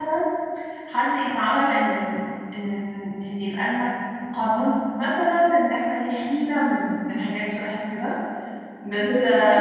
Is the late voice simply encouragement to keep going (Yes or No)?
Yes